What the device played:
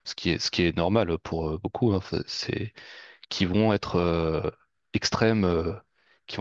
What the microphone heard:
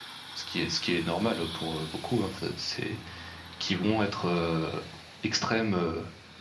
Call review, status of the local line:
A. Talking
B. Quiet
B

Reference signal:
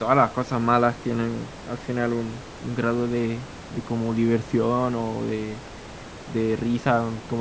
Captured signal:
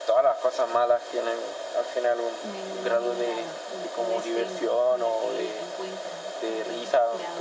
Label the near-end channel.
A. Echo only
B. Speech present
B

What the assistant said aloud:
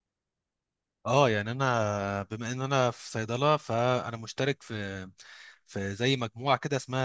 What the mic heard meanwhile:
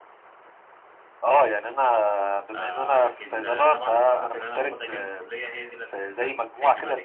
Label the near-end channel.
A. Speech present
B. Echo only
A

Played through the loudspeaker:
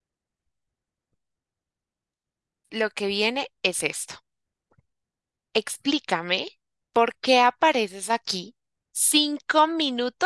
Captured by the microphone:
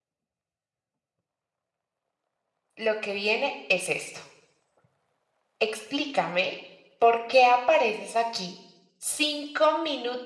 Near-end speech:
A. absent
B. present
A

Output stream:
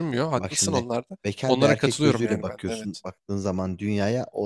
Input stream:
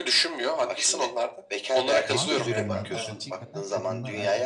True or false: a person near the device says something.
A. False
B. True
B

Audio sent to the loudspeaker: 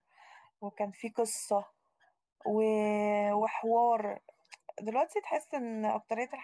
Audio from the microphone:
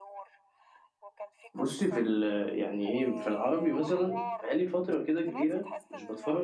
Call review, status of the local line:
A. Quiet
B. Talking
B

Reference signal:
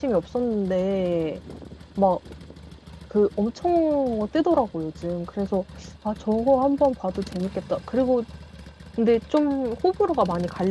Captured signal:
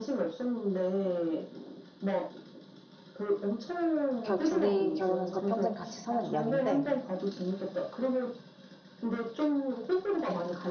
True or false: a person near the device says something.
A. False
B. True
B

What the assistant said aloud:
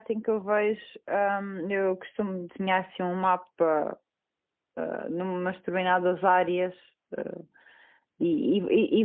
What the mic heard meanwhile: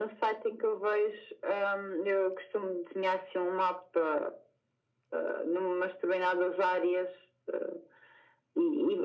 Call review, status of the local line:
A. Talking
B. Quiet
B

